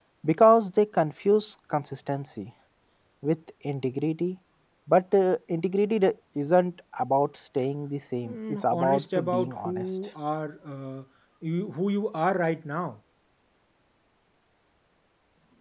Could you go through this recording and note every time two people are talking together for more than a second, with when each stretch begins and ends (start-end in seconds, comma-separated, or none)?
8.2-10.0